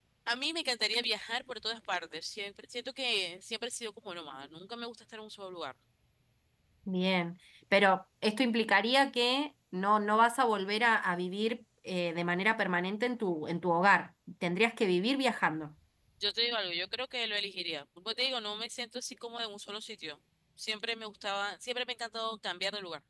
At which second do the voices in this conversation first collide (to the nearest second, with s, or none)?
none